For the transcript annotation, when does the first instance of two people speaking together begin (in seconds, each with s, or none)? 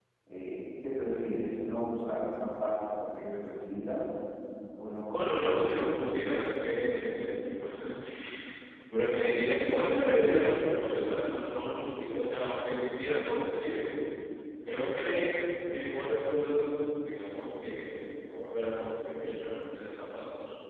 5.1 s